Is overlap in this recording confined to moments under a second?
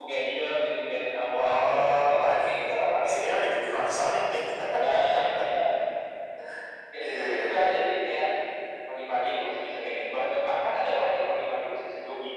No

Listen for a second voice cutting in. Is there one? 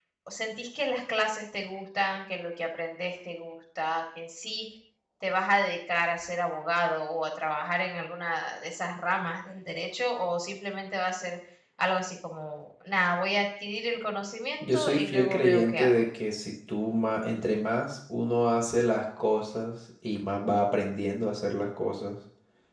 Yes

